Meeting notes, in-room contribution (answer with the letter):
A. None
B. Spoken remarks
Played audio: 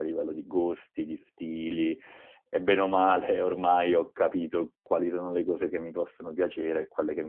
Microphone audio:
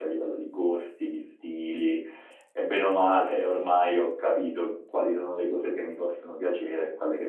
A